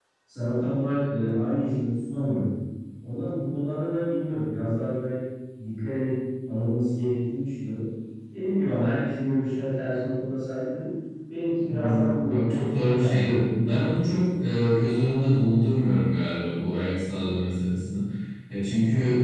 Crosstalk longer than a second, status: present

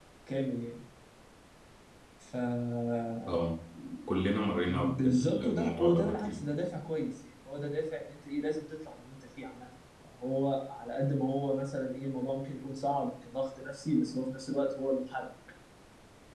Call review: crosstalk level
present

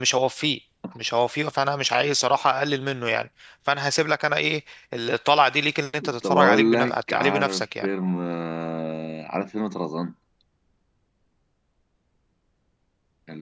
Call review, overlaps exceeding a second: present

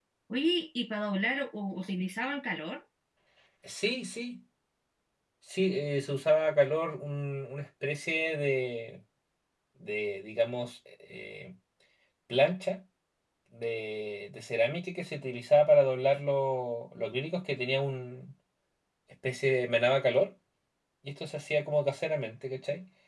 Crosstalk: none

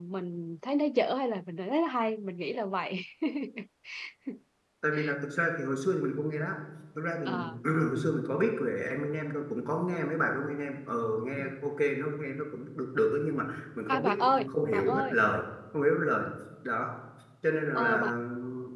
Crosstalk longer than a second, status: present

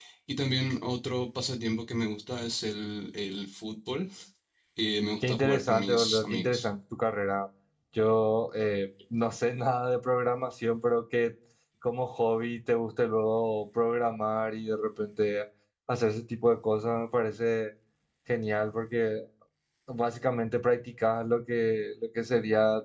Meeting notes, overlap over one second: present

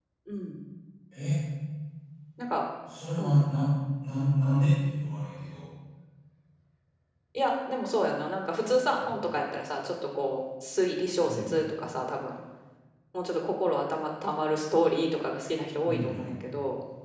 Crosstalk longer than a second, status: none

